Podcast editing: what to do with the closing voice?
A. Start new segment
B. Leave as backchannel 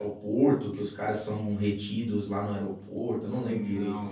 A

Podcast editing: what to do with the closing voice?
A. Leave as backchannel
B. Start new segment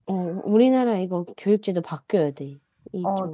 B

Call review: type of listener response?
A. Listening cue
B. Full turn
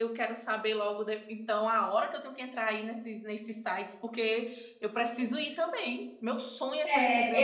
B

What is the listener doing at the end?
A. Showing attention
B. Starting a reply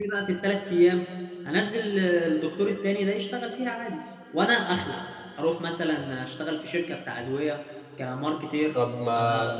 B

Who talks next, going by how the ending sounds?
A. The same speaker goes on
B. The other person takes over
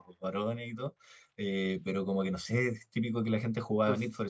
A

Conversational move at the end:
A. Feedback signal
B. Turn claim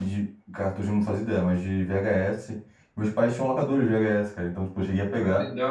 A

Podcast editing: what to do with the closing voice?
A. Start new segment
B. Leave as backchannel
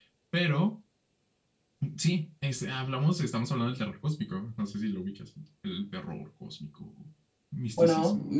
A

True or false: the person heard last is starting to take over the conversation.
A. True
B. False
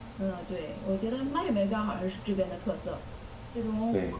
B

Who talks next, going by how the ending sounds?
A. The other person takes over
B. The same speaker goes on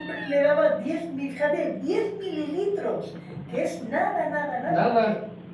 B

